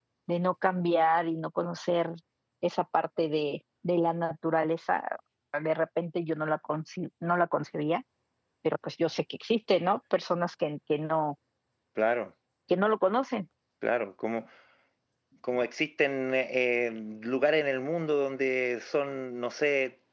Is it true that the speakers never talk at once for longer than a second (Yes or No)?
Yes